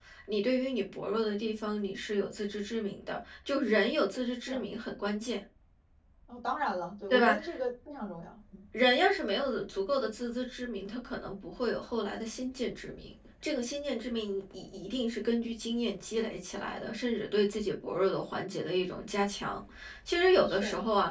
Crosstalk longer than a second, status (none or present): none